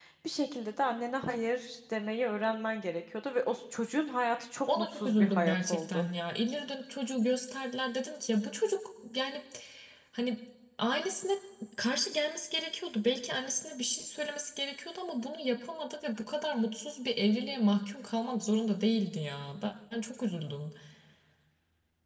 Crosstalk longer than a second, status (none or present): present